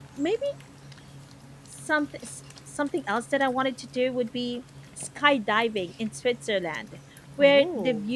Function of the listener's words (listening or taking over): listening